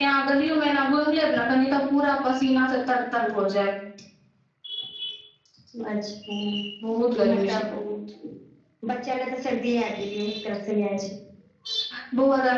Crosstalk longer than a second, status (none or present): none